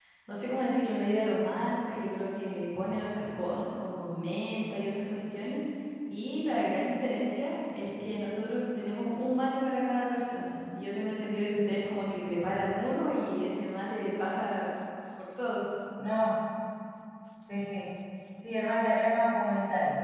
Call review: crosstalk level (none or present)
none